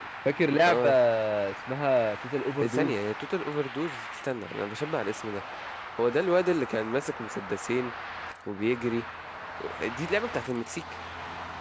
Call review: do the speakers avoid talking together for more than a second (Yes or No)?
Yes